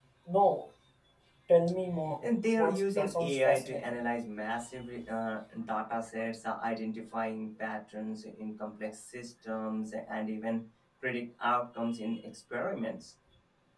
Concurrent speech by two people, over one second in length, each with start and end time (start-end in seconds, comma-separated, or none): 2.6-3.8